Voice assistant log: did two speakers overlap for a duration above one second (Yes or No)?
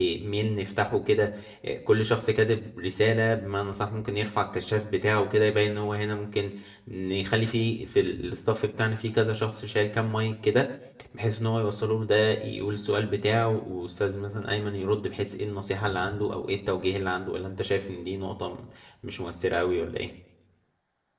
No